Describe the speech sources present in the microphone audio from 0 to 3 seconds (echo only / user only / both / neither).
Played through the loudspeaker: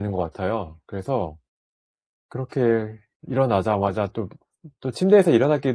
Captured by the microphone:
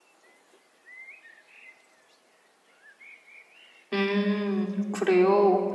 neither